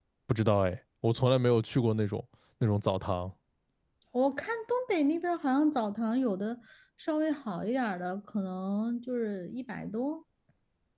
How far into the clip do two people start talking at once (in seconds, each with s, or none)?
none